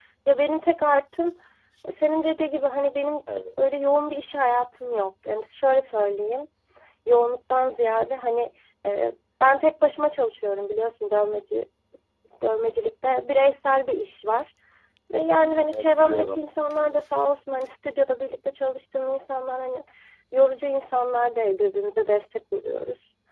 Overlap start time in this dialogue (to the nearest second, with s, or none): 15 s